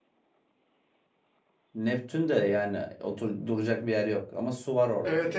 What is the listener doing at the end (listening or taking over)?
taking over